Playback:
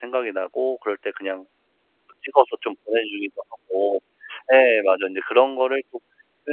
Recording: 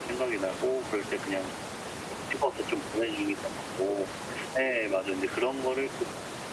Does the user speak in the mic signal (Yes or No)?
No